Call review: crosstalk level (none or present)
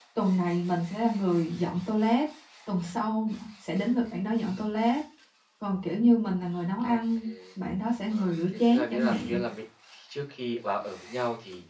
present